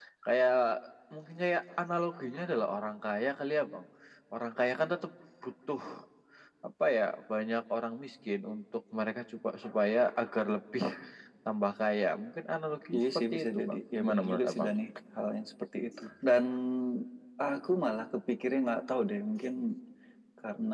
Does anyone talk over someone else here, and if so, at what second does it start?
12.9 s

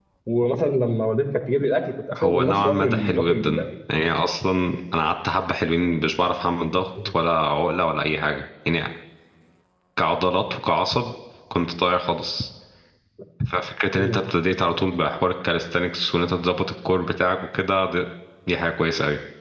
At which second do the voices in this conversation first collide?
2.1 s

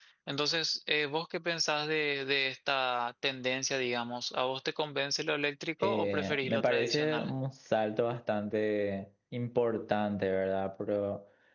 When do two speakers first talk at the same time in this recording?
5.8 s

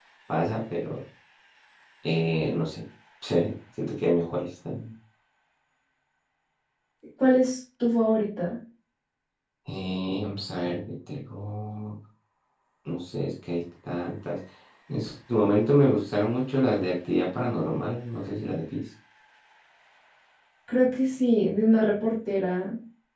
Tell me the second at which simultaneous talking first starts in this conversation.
none

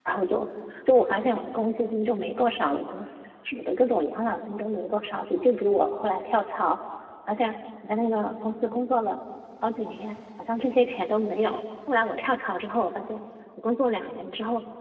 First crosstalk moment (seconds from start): none

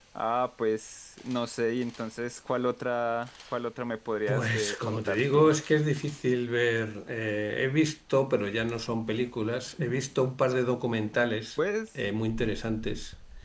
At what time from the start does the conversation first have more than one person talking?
4.3 s

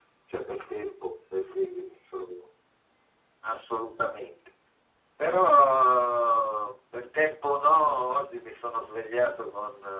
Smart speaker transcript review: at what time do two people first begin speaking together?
none

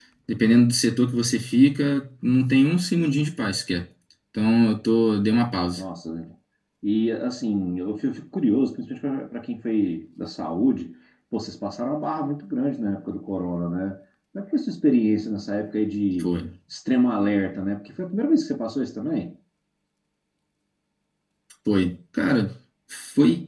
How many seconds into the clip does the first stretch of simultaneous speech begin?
none

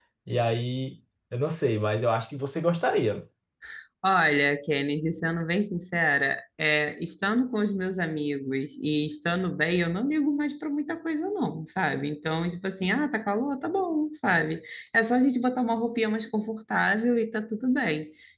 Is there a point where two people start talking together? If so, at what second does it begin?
none

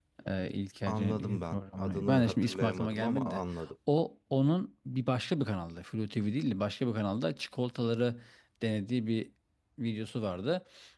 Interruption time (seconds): 0.8 s

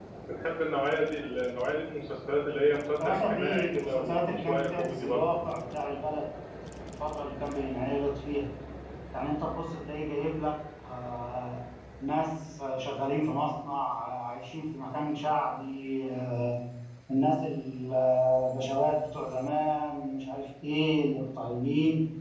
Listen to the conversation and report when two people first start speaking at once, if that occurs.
3.0 s

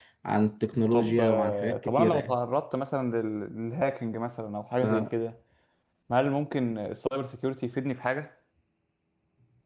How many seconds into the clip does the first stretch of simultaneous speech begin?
0.9 s

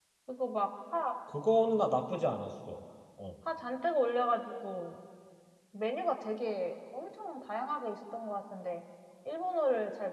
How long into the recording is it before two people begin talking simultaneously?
none

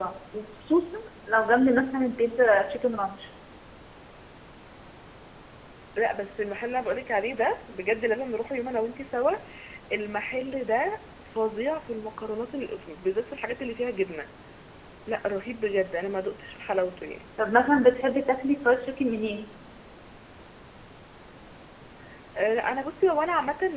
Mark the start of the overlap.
none

